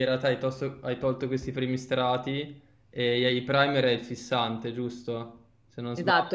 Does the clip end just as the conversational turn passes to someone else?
Yes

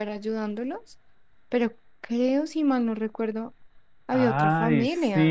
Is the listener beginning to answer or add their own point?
Yes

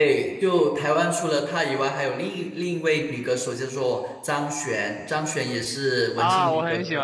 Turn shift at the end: Yes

